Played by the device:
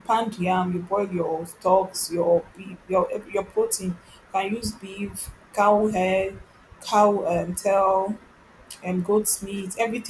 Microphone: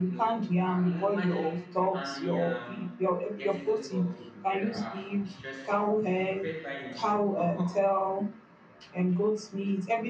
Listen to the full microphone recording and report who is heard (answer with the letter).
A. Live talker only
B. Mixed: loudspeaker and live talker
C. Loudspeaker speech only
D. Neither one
B